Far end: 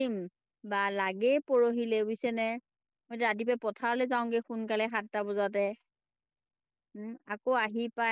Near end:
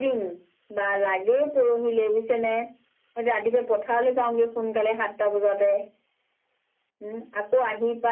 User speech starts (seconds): none

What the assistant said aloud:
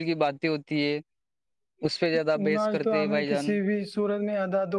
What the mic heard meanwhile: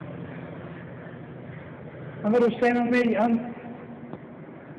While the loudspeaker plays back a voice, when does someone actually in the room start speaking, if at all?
2 s

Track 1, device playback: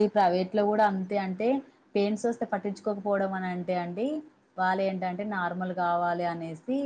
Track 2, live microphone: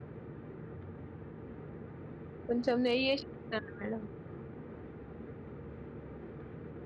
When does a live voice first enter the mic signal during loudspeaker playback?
2 s

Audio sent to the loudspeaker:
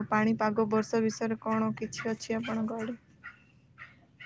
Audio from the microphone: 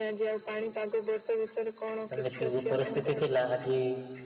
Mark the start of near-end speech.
2 s

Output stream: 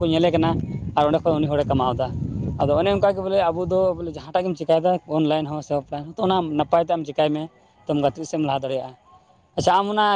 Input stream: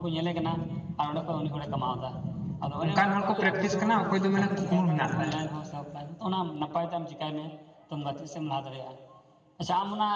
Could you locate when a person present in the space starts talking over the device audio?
3 s

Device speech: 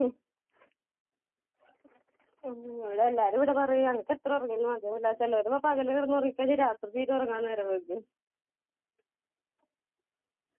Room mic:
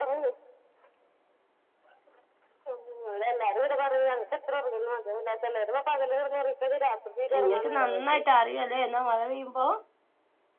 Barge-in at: 7 s

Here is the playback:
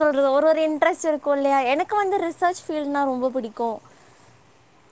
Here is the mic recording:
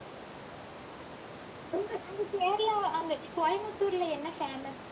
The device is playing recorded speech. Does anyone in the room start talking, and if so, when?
2 s

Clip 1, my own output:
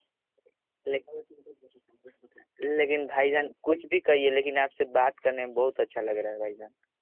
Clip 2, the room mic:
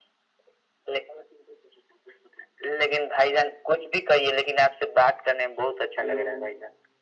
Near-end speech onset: 6 s

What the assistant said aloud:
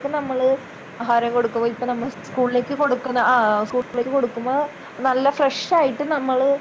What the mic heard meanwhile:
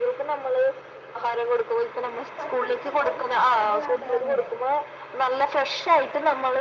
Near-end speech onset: 2 s

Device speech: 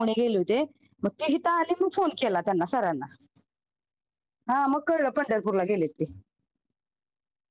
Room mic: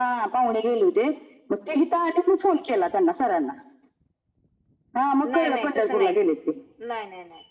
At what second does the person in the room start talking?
5 s

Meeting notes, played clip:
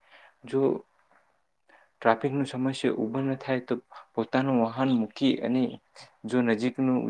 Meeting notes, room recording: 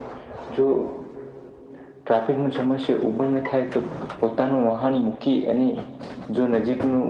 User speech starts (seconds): none

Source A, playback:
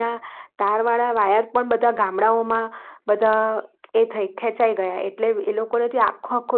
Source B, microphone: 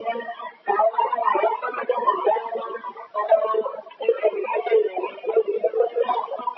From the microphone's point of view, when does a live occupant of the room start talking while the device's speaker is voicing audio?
none

